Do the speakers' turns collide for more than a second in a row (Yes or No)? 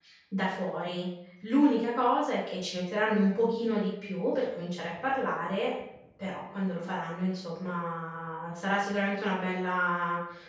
No